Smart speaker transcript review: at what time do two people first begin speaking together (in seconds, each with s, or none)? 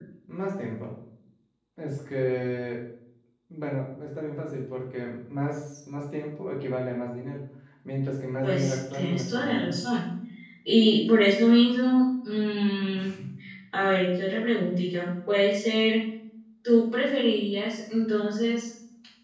8.4 s